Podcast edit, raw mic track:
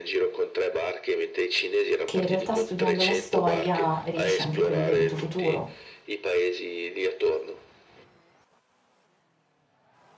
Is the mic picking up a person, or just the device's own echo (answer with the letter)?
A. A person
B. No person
A